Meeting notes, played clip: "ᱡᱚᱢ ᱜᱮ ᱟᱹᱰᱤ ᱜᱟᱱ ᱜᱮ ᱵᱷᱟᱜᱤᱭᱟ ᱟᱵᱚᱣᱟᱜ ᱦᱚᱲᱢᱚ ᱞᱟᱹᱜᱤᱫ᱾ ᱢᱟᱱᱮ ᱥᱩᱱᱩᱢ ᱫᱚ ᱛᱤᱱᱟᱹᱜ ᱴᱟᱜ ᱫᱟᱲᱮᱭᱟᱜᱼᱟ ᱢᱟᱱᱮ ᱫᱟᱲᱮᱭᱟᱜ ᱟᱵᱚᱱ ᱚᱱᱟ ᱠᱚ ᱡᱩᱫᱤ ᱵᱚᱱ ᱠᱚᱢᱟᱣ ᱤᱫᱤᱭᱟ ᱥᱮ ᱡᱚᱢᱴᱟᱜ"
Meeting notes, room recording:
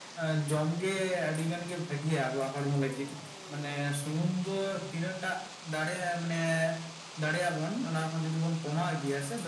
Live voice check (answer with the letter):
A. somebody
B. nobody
B